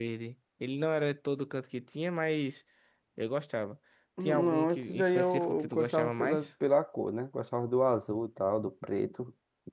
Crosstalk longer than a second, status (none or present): present